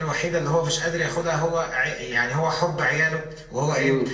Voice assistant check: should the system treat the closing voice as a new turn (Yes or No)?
No